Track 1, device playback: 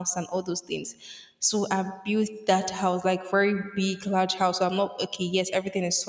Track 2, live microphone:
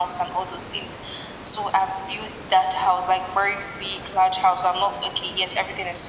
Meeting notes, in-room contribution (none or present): none